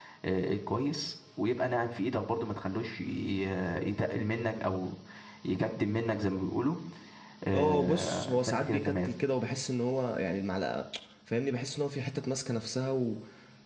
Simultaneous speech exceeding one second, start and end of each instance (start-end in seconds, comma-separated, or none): 7.5-9.1